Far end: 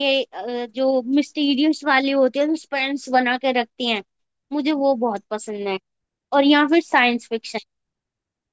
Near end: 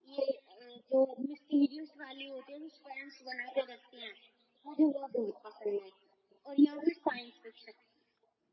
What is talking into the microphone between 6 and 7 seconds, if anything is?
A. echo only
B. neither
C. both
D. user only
A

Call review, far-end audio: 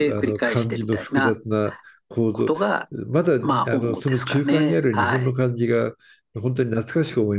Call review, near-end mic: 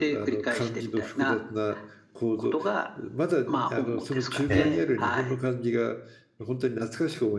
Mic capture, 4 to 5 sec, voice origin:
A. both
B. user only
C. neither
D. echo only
A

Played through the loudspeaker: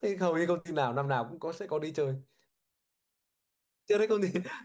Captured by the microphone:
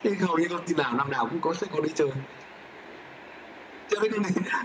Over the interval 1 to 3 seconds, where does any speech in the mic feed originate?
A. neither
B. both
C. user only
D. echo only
D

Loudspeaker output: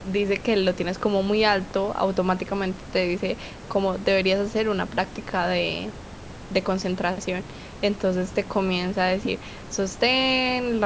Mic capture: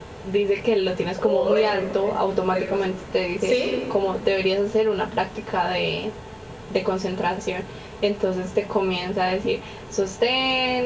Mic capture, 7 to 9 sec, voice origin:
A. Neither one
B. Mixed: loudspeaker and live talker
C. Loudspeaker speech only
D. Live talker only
C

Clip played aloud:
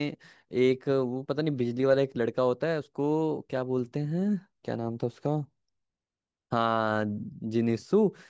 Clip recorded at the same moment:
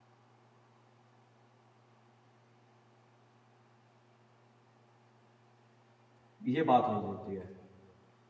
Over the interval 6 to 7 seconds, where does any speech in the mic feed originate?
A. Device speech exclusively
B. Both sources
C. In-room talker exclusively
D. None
C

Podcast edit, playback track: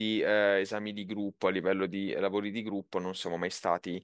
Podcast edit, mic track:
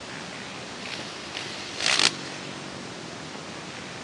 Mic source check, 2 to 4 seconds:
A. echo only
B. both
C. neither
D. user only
C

